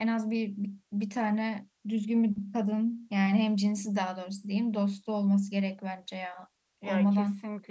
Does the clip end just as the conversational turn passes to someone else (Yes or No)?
Yes